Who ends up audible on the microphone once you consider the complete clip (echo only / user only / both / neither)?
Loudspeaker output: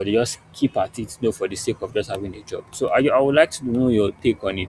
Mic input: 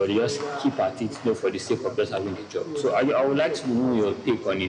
both